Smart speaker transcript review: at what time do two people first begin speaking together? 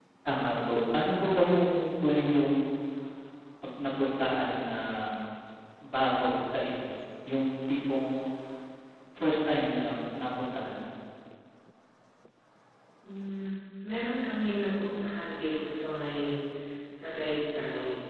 none

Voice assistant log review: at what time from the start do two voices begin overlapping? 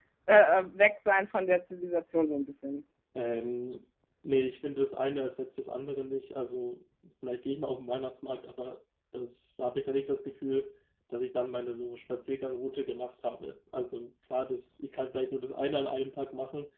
none

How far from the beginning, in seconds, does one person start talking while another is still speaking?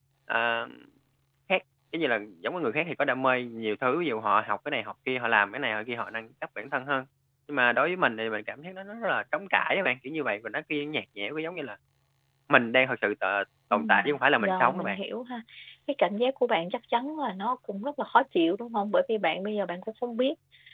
13.7 s

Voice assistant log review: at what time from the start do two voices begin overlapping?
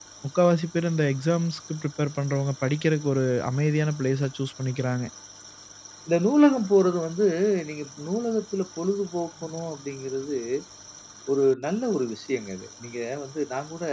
none

